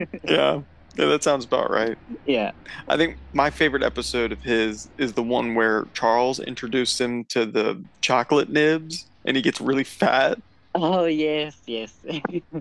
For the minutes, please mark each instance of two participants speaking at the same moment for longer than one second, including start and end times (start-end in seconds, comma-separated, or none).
none